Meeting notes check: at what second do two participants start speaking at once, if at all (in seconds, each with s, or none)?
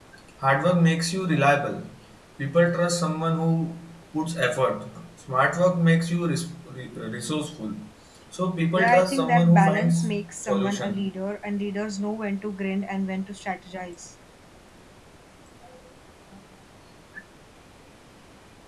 8.7 s